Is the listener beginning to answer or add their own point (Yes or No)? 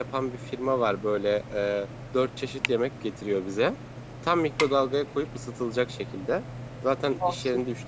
No